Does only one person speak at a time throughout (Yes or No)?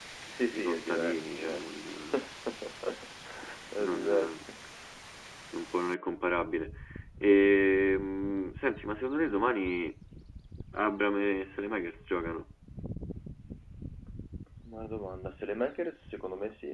No